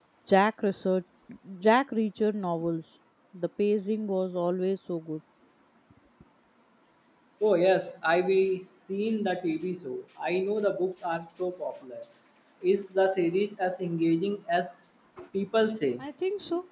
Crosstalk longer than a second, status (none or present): none